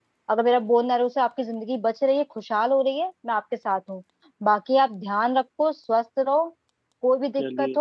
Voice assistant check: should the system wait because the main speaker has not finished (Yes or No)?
Yes